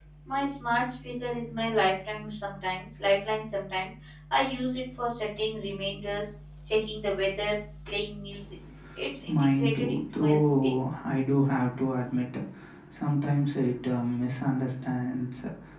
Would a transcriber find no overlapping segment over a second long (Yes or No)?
No